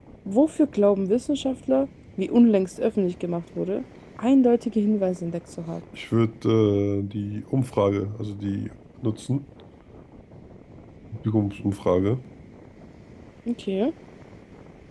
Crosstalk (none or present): none